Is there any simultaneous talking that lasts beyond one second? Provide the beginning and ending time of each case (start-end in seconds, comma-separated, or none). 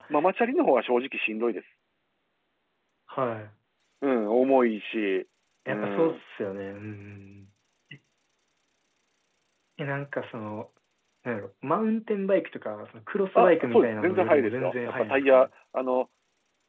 13.3-15.5